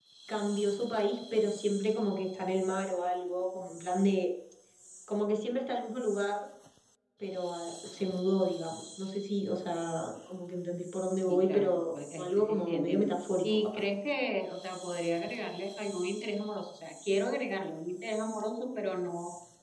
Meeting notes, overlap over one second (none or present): present